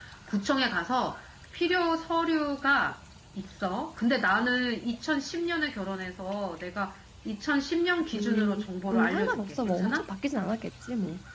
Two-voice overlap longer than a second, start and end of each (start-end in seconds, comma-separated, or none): 8.2-10.1